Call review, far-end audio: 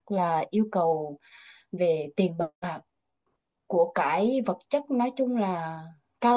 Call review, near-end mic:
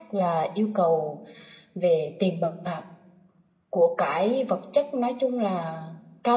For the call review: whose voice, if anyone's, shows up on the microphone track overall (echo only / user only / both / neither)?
echo only